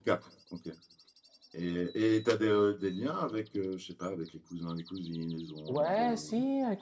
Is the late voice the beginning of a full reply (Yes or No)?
Yes